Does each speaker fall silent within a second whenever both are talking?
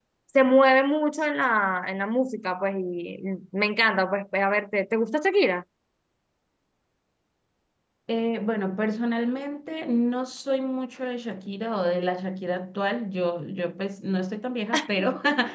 Yes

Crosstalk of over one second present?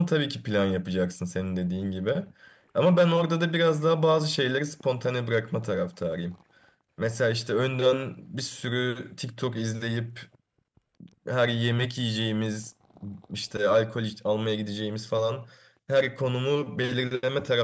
No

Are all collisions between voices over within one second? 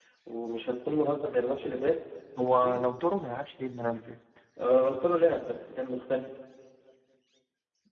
Yes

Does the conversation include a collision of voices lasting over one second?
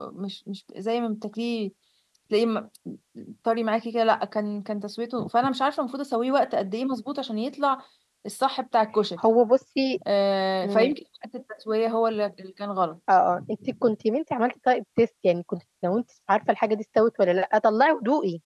No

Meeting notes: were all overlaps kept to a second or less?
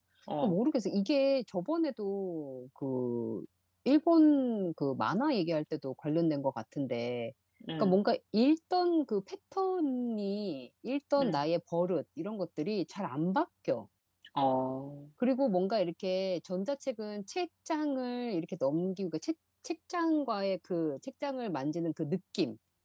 Yes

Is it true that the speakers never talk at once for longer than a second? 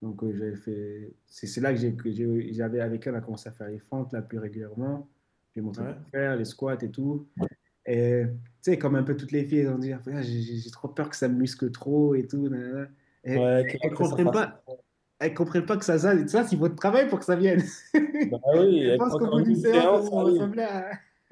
No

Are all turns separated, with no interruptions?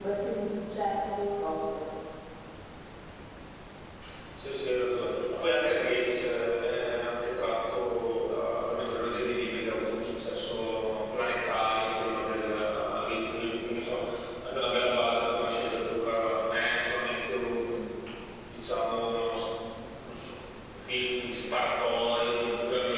Yes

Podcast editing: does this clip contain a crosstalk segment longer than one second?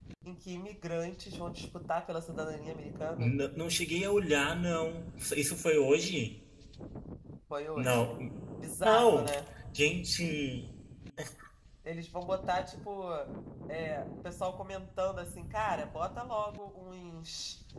No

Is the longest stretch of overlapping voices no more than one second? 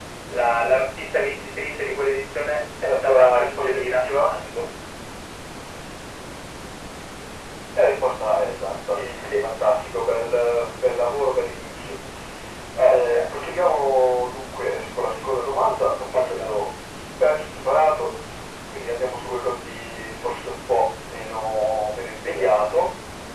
No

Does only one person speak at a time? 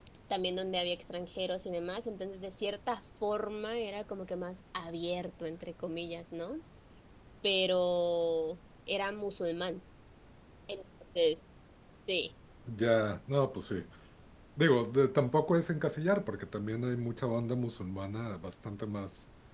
Yes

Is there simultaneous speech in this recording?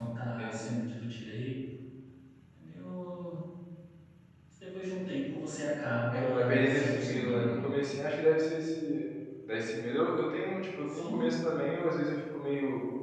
Yes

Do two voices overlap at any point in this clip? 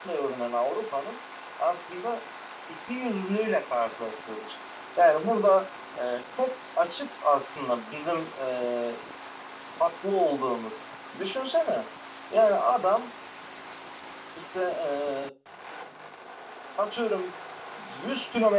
No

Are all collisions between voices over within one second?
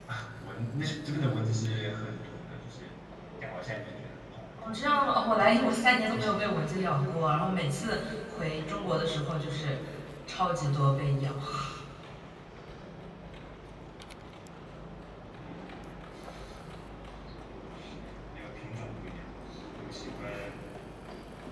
No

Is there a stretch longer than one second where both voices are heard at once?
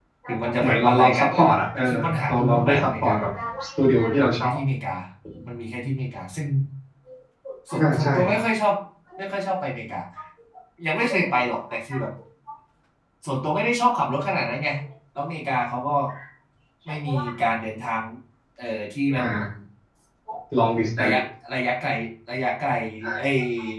Yes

